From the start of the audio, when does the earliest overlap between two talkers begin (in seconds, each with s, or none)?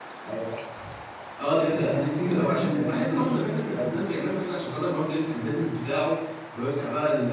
1.7 s